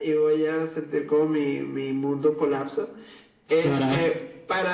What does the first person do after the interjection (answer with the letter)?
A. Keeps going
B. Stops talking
A